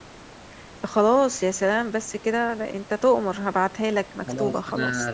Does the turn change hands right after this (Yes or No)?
Yes